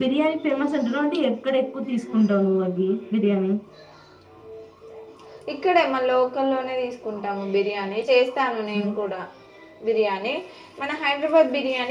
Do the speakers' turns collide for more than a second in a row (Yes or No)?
No